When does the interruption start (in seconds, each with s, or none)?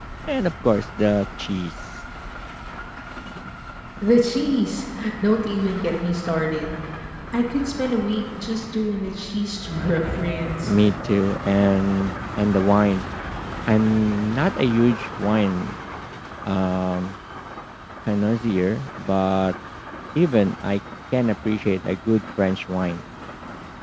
none